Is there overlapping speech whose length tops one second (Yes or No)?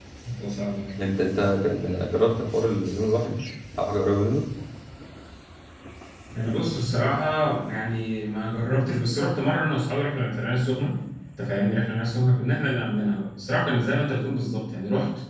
No